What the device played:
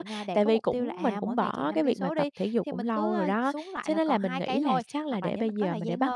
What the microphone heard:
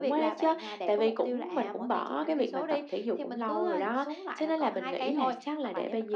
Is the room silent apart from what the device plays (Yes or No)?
Yes